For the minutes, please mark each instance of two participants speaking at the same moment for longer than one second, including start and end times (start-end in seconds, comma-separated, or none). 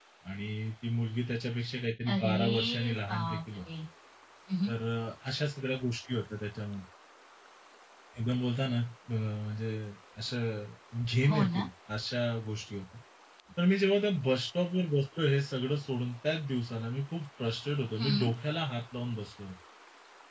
2.1-3.4